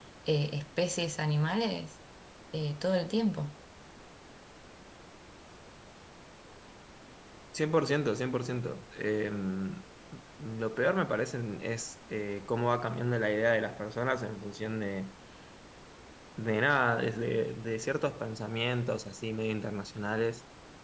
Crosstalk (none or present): none